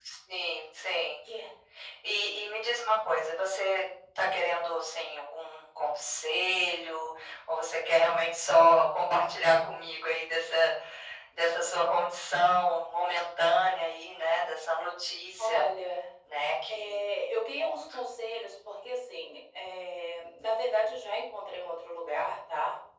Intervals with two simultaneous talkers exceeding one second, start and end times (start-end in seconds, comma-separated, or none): none